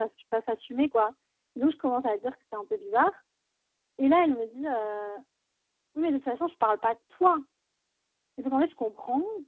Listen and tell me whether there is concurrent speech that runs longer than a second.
No

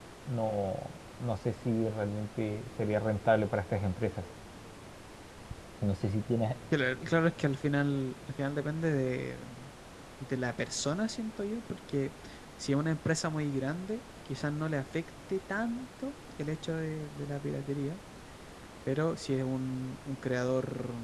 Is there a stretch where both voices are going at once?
No

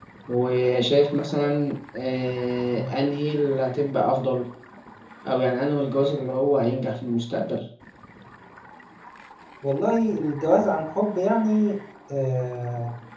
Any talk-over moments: No

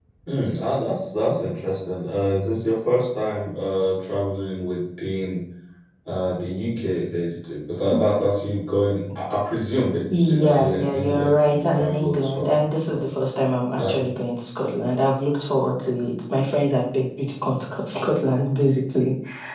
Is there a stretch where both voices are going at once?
Yes, from 10.1 s

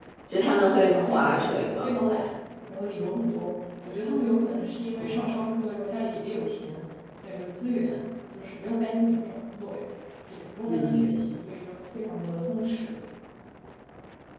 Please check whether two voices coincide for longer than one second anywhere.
Yes, from 0.7 s

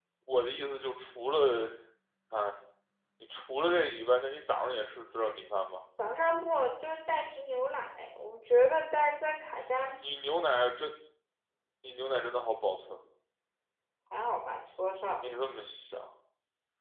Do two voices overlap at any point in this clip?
No

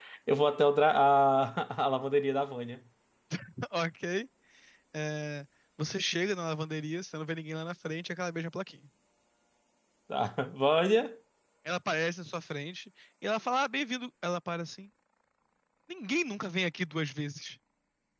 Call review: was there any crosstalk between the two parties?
No

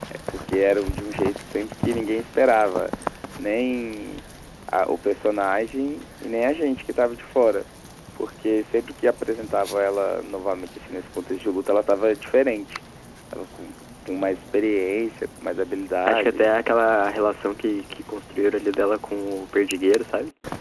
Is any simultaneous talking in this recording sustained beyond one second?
No

